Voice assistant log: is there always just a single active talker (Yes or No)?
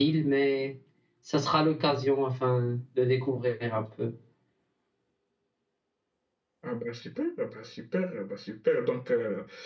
Yes